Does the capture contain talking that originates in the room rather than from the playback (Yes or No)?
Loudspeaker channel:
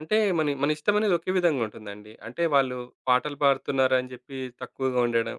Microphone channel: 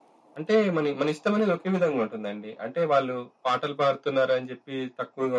No